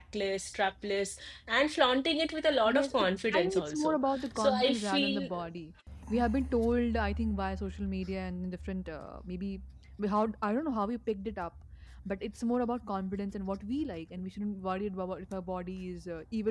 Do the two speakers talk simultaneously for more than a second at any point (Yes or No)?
Yes